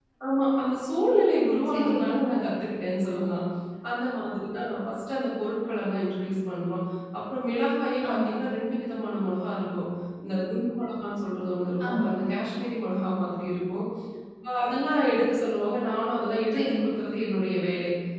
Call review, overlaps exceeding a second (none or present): none